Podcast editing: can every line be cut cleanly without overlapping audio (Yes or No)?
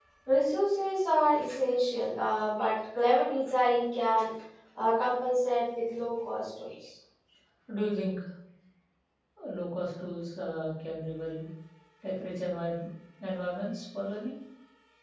Yes